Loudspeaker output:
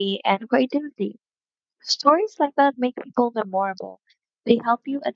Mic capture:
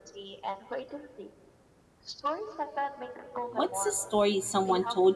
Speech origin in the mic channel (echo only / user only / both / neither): both